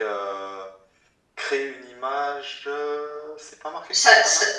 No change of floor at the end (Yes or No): No